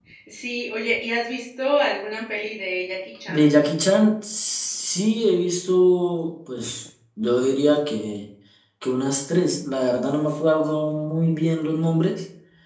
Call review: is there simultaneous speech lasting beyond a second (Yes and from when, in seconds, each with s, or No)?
No